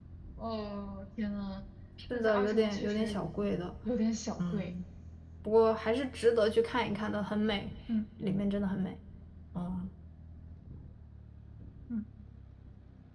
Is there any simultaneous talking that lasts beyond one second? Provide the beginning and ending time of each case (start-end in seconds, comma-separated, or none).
2.1-3.6